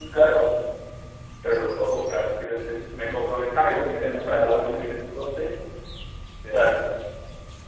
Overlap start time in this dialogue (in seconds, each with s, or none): 3.6 s